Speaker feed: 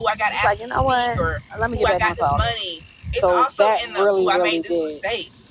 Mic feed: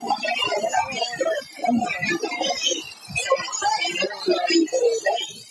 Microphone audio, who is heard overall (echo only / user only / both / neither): echo only